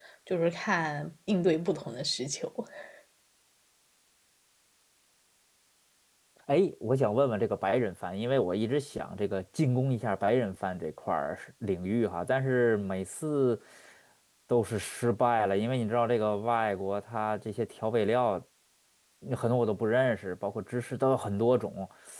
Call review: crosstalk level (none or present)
none